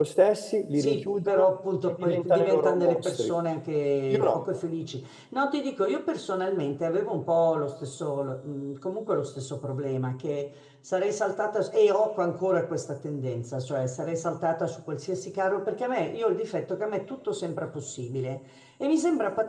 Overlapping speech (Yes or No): Yes